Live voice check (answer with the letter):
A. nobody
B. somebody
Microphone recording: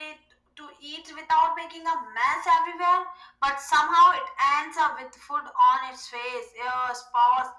A